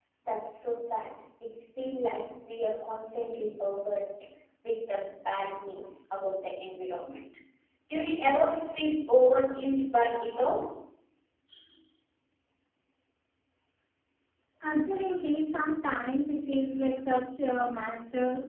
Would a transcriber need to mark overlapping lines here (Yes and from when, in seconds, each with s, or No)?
No